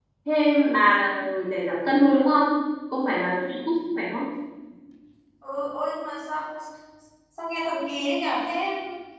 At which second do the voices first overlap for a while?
none

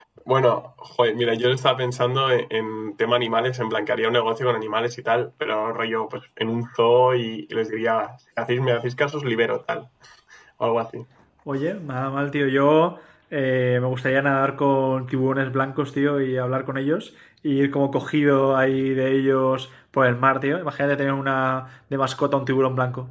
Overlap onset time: none

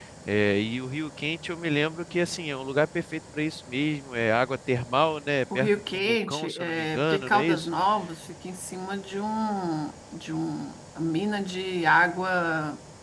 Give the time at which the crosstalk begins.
5.5 s

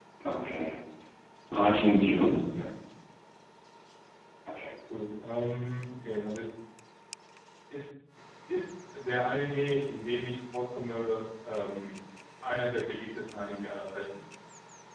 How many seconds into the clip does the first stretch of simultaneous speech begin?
none

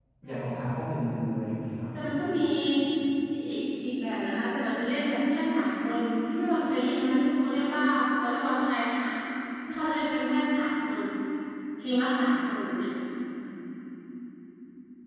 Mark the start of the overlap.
none

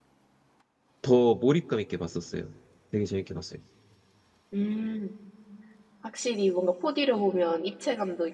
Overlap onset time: none

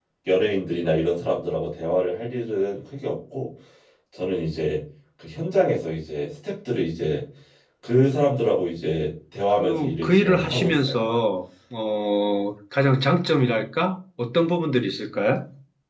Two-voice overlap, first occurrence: 9.6 s

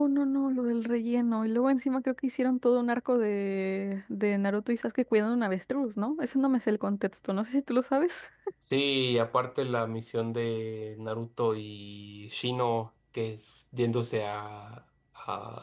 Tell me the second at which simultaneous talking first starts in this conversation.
none

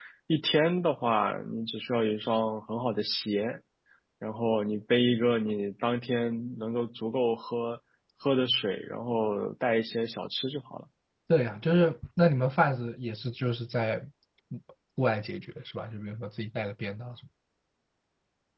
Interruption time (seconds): none

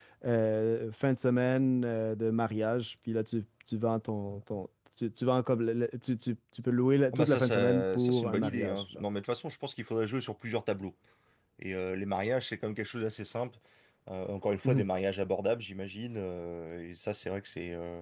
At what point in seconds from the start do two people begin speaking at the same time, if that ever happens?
7.1 s

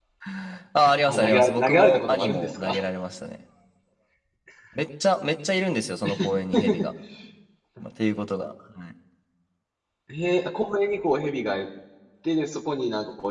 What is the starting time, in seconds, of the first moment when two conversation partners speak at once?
1.1 s

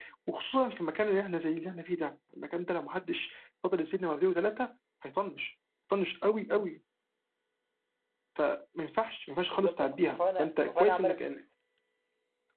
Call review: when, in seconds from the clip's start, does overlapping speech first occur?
9.5 s

